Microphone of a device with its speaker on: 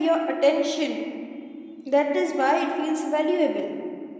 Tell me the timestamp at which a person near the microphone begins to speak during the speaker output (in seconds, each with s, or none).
none